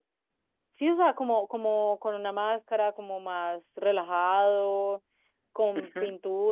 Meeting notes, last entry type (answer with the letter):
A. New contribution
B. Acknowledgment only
B